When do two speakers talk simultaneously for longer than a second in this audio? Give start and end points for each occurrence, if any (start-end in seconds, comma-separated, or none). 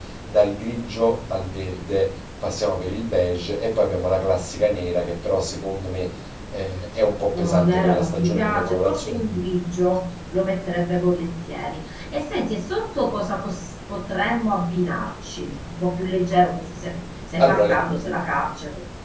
7.3-9.5